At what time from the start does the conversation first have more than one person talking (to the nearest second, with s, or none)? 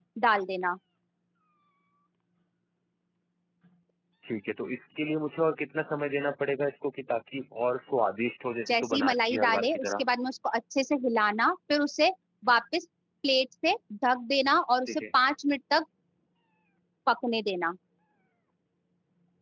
9 s